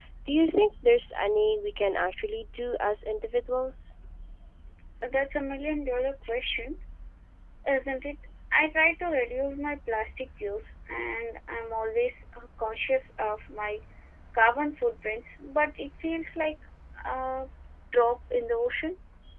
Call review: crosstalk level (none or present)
none